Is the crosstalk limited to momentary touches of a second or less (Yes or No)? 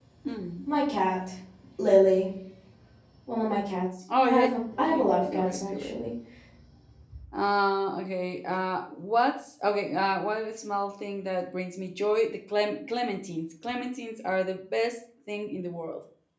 No